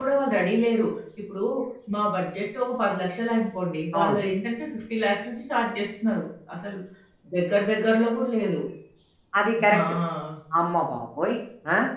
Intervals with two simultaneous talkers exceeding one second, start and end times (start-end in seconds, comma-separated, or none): none